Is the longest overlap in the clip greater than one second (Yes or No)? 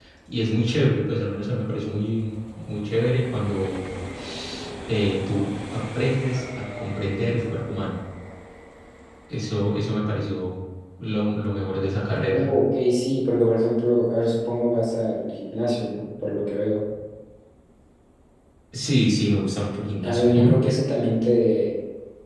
No